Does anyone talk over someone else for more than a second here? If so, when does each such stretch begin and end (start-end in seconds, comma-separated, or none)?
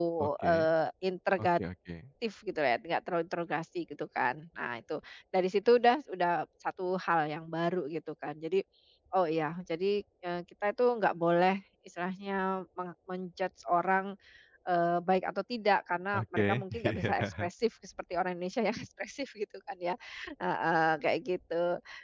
16.1-17.5